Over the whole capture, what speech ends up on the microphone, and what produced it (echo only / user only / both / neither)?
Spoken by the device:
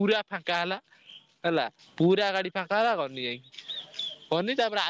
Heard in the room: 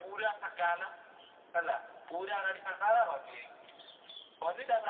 echo only